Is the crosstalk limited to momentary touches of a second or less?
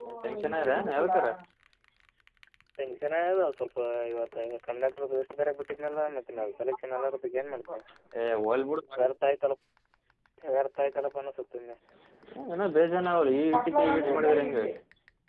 Yes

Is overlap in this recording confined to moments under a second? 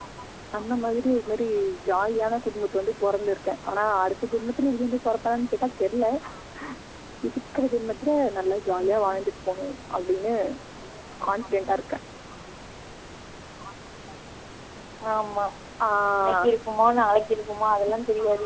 Yes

